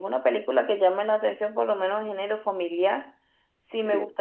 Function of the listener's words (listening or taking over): listening